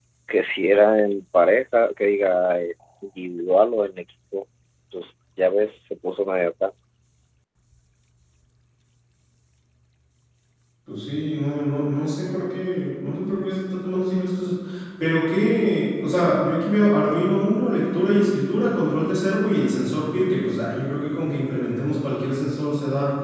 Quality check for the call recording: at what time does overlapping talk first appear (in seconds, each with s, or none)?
none